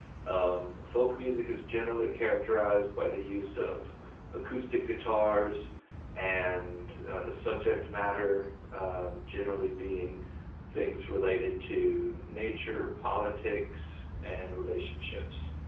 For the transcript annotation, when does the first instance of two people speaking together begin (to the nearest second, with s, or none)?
none